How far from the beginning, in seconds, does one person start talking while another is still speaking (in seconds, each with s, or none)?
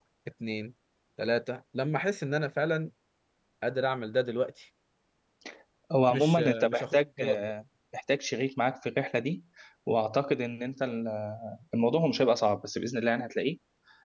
6.1 s